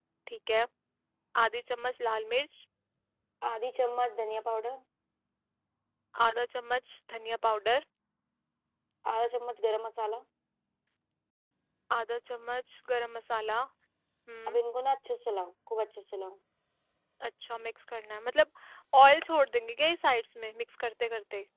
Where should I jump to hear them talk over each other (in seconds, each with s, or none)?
none